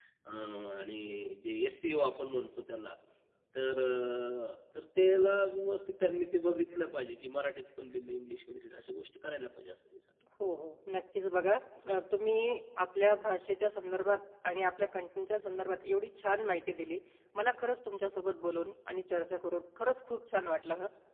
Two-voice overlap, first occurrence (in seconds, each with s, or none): none